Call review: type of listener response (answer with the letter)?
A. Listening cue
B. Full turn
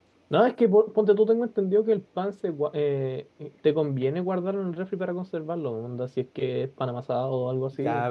B